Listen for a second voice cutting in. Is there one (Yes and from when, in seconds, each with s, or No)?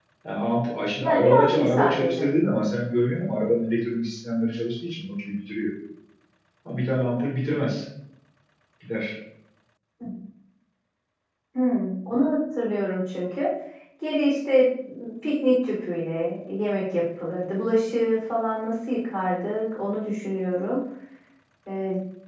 Yes, from 1.0 s